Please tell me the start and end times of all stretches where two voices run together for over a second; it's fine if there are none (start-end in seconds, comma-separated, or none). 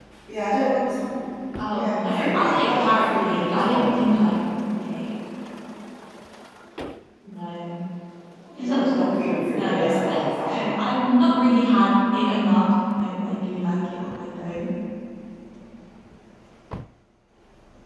1.7-3.9, 9.5-10.7